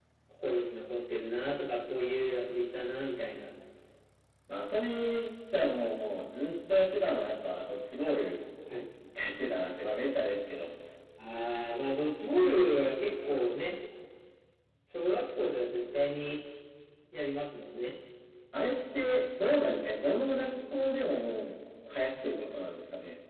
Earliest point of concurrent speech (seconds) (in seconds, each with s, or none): none